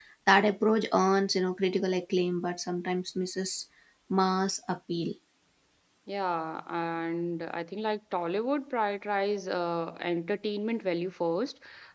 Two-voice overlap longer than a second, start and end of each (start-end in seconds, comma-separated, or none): none